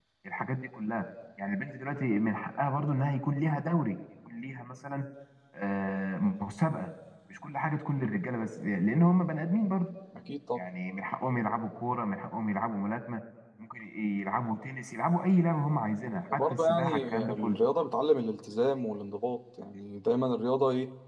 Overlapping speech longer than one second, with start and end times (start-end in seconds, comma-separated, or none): 16.3-17.6